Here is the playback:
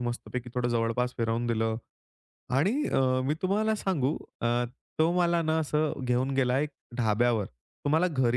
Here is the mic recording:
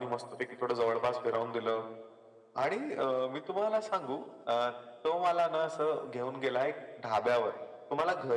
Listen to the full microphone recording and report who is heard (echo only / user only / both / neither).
echo only